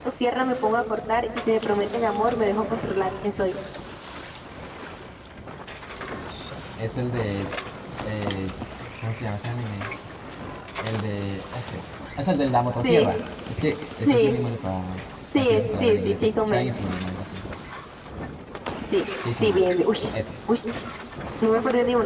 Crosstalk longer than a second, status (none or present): present